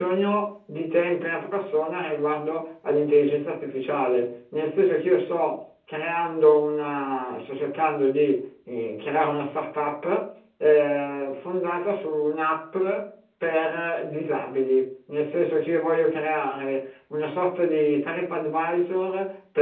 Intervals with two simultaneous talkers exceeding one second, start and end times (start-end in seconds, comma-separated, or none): none